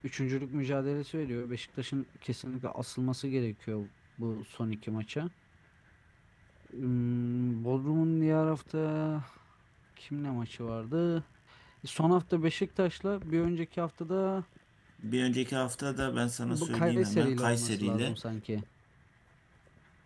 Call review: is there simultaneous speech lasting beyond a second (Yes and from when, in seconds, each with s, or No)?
Yes, from 16.5 s